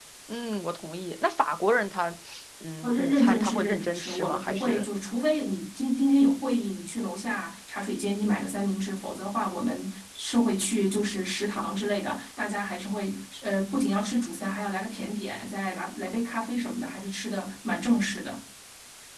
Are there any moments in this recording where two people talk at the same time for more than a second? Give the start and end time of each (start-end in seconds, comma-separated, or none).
2.8-4.8